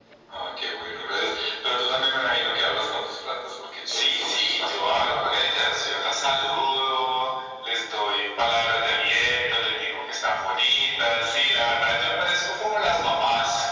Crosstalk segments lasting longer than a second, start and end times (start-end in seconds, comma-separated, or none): 3.9-5.6